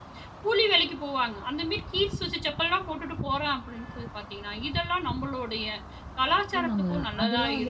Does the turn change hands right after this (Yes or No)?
Yes